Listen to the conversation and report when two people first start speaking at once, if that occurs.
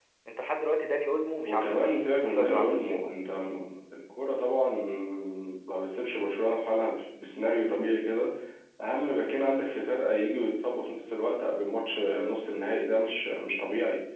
1.5 s

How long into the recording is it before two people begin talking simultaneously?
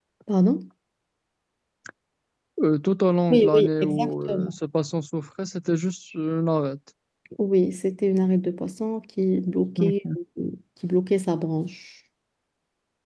3.3 s

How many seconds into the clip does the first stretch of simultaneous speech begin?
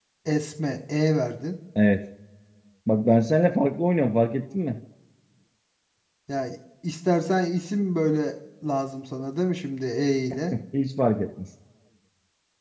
none

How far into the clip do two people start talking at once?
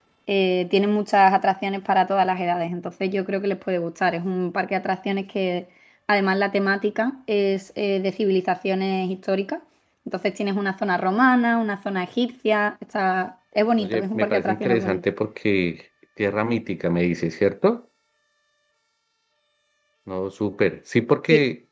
13.8 s

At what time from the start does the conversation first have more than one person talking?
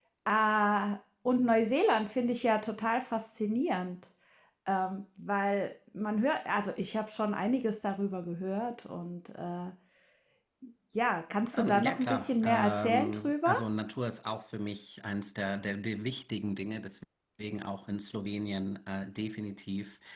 11.6 s

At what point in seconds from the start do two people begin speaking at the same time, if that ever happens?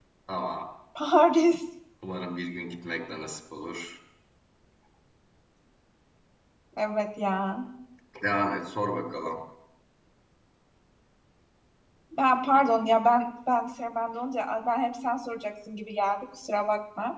none

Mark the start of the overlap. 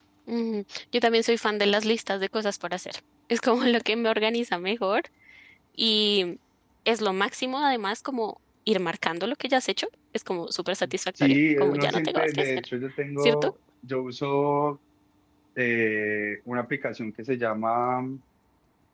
11.2 s

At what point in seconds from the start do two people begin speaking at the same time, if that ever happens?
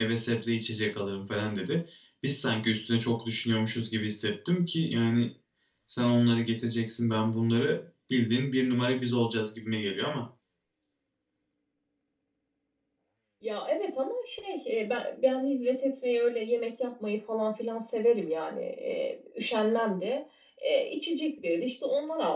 none

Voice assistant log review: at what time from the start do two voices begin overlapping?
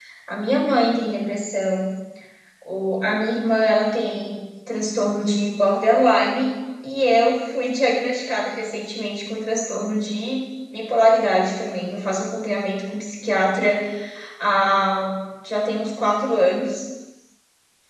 none

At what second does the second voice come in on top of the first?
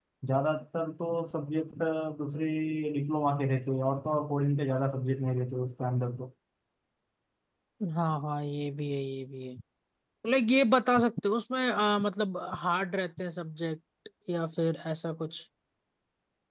none

